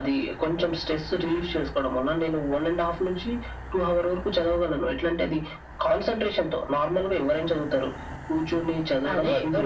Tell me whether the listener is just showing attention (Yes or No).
No